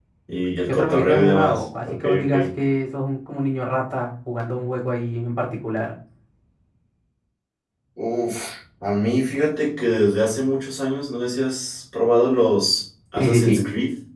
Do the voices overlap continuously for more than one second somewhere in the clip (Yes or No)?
Yes